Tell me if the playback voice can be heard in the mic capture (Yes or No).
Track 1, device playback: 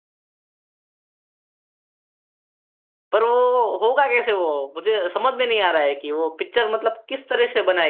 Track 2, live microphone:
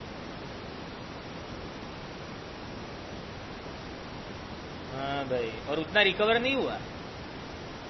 No